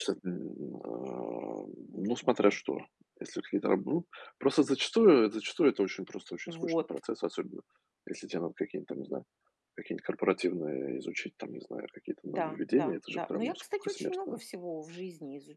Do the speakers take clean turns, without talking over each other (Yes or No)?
No